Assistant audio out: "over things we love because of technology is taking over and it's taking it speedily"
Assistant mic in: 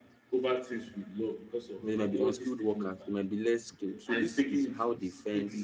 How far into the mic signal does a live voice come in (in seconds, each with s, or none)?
1.8 s